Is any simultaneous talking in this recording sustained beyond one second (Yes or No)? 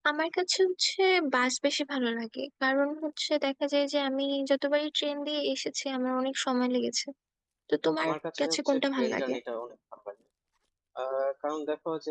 Yes